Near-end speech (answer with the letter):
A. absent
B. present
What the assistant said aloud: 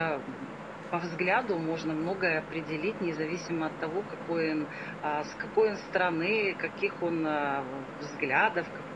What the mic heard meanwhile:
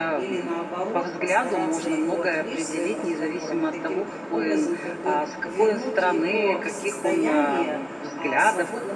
B